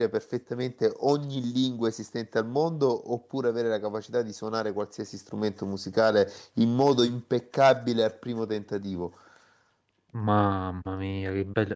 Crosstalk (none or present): none